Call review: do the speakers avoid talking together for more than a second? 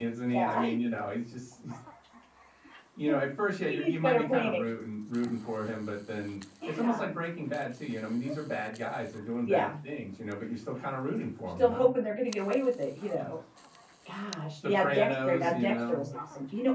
No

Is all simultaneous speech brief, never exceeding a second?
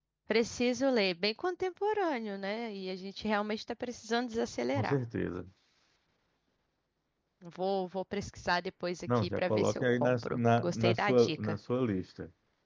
No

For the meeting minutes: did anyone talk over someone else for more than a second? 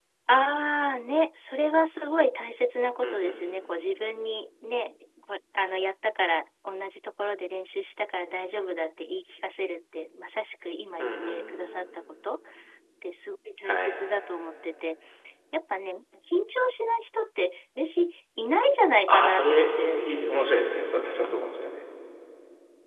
Yes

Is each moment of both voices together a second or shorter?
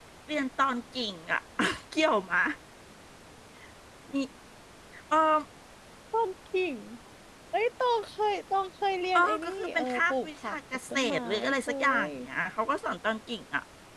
No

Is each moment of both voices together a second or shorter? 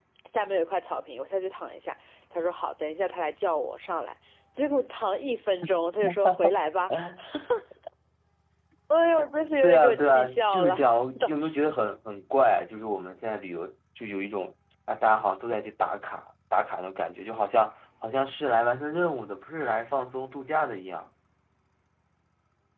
No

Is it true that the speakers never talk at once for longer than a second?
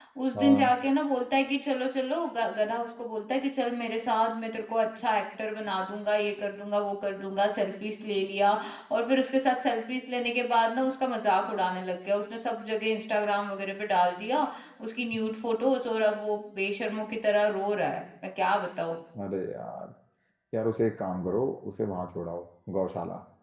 Yes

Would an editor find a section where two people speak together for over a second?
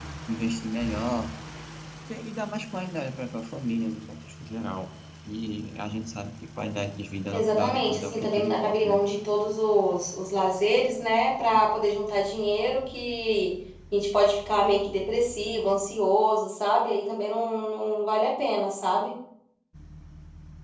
Yes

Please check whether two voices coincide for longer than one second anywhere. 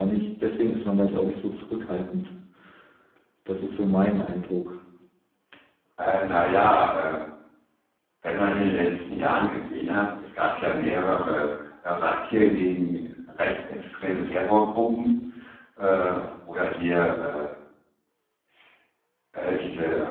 No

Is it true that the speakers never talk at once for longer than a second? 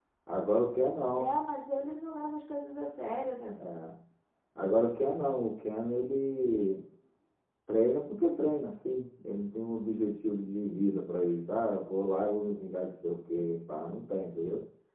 Yes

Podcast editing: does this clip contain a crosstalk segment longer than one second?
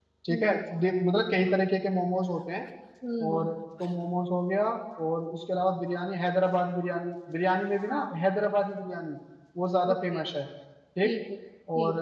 No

